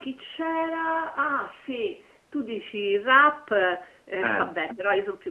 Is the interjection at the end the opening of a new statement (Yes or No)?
No